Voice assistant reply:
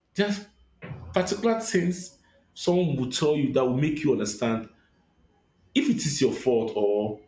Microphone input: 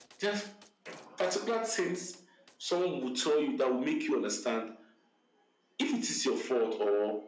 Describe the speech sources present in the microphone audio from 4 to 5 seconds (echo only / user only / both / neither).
echo only